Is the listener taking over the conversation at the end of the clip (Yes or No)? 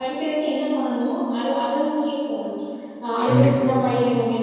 No